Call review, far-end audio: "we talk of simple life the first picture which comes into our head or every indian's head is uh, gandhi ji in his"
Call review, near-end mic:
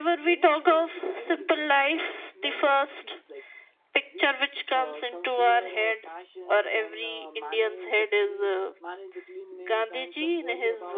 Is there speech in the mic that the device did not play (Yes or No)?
Yes